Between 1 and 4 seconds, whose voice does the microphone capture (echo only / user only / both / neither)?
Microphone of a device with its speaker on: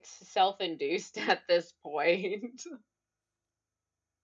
user only